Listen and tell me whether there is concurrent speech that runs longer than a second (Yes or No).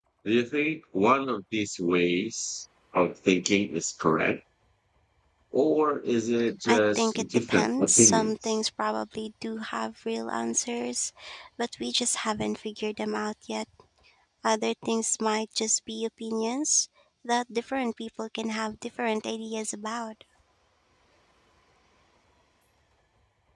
Yes